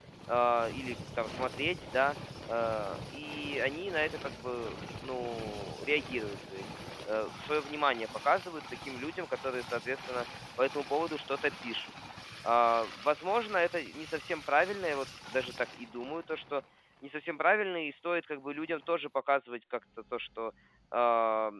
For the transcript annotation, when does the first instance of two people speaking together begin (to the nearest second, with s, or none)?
none